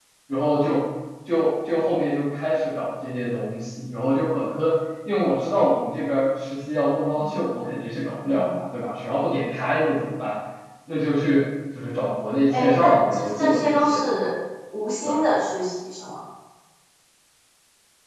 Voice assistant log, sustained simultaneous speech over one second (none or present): present